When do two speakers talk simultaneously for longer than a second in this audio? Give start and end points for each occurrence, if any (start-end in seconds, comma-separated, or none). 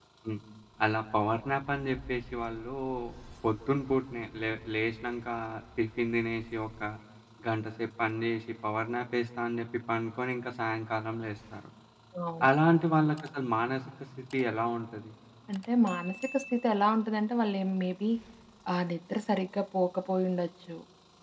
none